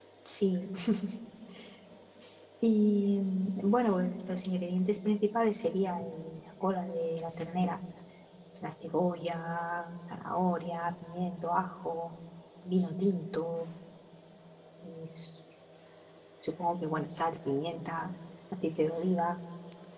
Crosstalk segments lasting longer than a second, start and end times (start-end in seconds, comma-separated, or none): none